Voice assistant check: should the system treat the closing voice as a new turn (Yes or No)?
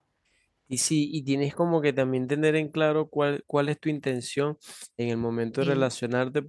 No